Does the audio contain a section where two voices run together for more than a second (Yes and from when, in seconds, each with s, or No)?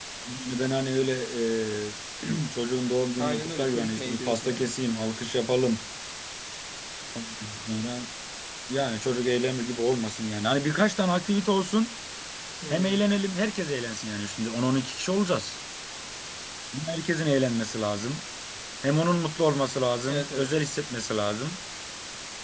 Yes, from 3.2 s